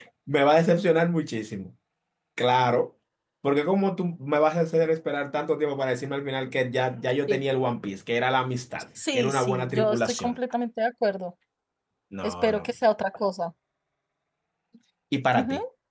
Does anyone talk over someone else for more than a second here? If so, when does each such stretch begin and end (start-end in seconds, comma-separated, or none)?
9.1-10.3